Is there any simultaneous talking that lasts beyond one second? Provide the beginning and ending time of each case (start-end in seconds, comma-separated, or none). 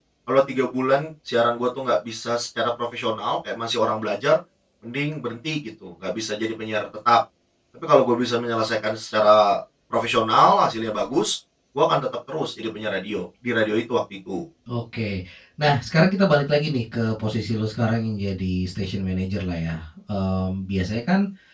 none